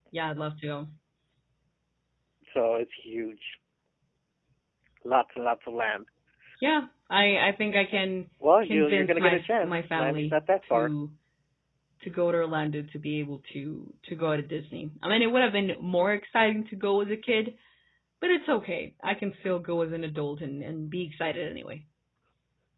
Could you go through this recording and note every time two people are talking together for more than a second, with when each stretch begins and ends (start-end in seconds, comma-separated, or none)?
8.6-10.9